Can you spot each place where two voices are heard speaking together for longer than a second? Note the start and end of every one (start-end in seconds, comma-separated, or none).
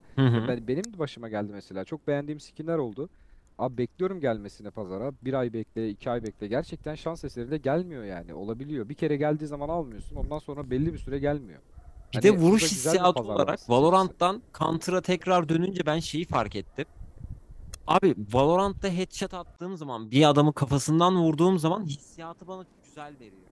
12.1-14.1